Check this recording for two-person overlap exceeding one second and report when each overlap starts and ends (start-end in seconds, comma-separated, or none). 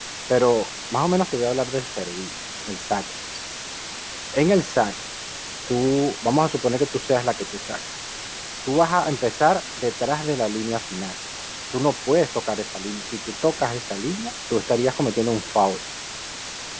none